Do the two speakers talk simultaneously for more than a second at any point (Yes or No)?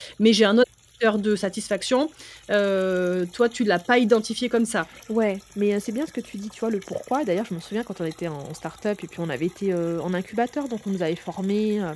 No